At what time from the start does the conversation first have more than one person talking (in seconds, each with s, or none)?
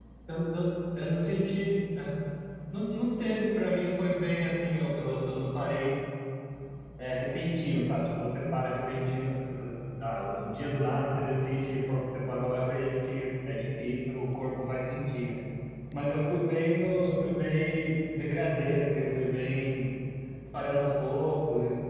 none